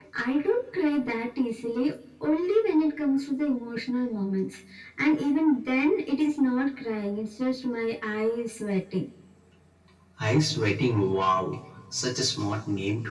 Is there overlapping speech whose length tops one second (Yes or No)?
No